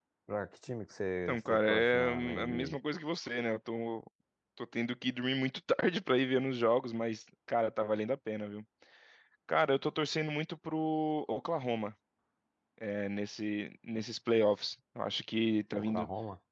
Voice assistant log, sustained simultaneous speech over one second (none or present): present